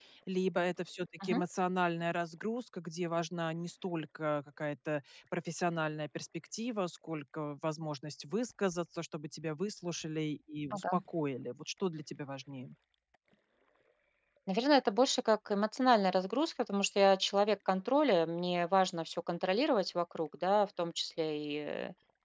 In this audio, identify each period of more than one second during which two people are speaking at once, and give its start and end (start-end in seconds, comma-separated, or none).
none